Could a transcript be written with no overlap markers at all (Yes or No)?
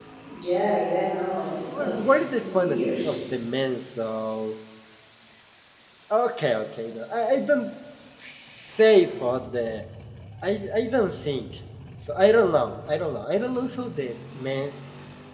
No